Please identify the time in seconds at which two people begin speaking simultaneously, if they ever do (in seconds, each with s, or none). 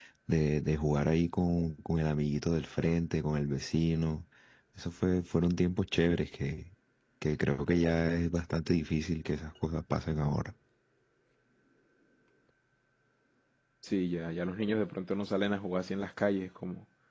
none